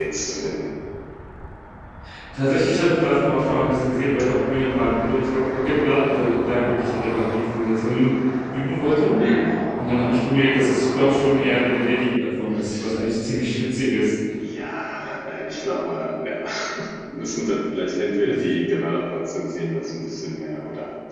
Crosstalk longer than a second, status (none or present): none